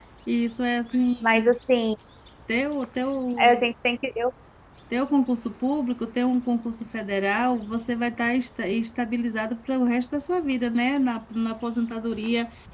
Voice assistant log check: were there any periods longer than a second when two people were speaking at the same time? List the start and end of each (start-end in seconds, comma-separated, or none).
none